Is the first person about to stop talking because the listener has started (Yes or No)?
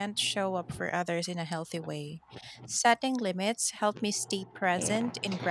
Yes